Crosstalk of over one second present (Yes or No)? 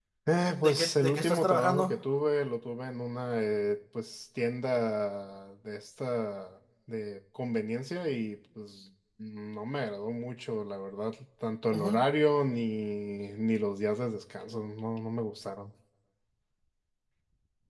Yes